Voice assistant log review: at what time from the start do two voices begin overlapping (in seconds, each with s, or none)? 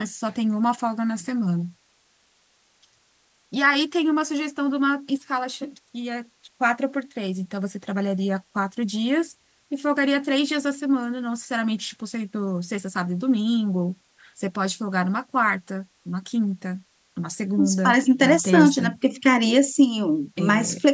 17.6 s